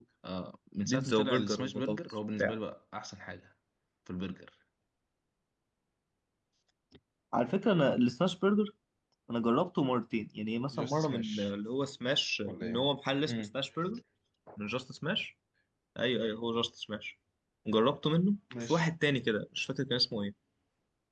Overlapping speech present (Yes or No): Yes